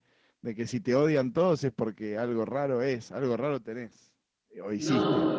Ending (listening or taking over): taking over